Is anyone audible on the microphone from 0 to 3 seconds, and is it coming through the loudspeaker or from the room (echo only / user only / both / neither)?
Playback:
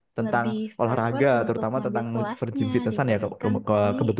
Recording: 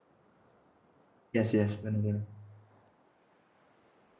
user only